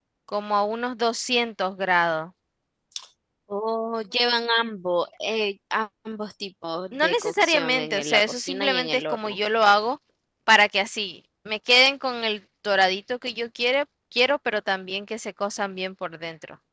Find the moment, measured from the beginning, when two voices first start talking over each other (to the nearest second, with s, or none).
7 s